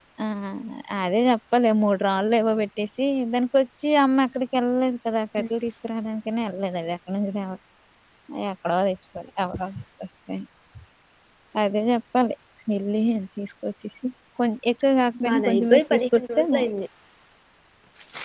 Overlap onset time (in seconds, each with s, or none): 15.2 s